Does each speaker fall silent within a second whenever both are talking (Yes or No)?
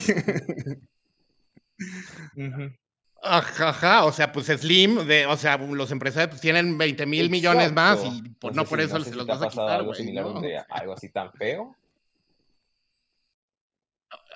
No